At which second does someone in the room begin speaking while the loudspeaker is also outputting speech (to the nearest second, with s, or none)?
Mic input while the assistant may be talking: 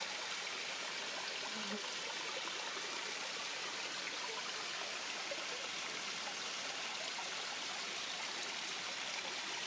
none